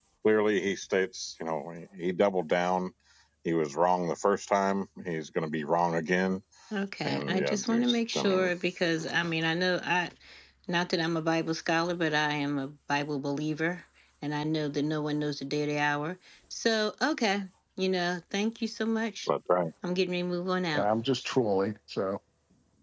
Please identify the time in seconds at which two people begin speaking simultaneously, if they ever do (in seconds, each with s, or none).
7.0 s